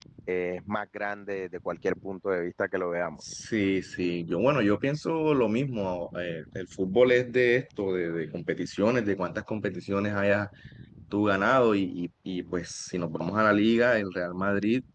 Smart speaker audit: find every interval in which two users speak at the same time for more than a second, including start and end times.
none

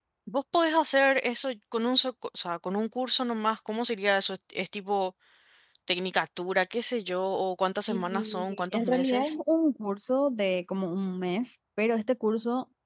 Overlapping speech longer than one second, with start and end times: 7.9-9.3

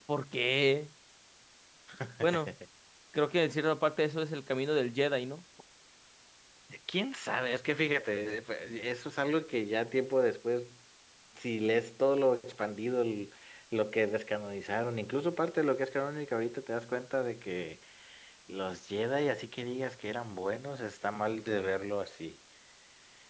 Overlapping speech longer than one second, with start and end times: none

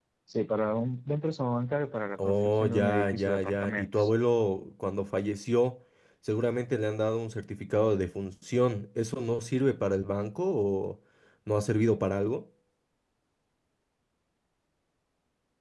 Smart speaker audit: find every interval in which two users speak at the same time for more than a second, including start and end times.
2.2-4.1

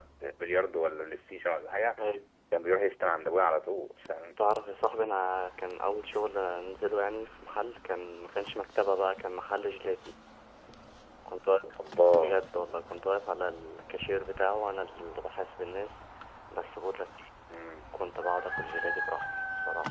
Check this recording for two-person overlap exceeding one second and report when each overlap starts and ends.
none

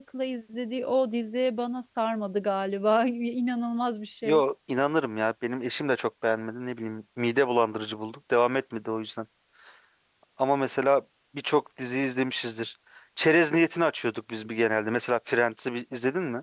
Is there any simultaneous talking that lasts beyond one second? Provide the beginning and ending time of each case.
none

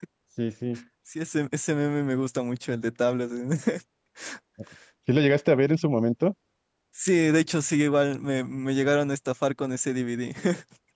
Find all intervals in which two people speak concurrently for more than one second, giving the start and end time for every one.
none

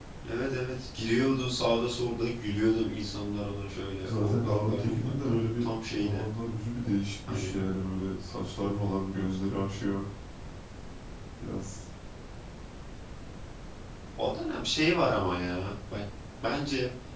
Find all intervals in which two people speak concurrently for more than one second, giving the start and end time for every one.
4.0-6.2

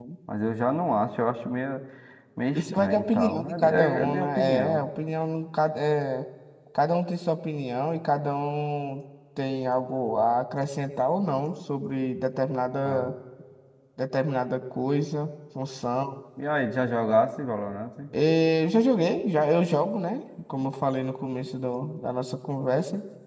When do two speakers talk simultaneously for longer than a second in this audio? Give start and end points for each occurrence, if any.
2.5-4.8

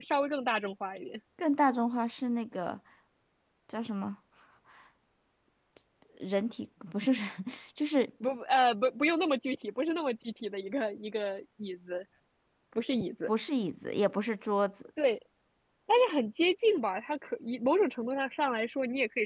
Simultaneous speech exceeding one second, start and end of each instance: none

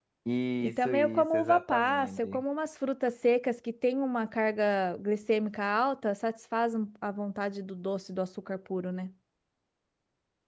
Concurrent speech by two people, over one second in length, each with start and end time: 0.6-2.4

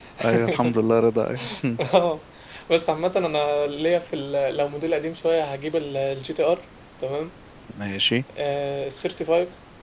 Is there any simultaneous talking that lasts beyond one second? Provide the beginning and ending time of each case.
none

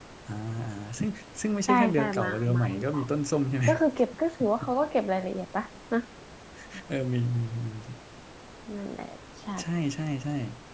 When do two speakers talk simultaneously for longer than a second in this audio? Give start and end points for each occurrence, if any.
1.7-3.0

